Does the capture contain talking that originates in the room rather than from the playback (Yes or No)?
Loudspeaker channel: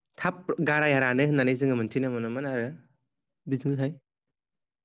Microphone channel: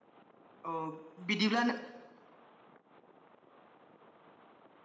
Yes